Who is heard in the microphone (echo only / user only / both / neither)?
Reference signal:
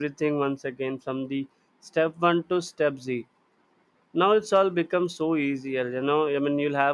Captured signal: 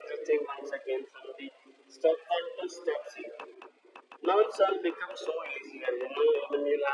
echo only